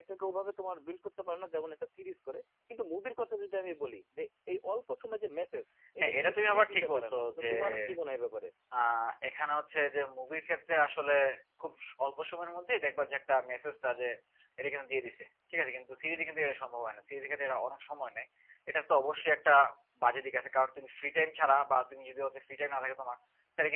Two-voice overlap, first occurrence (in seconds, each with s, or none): 6.0 s